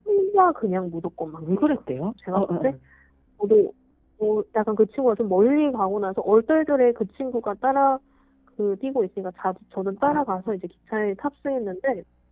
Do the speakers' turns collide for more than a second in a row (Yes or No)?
No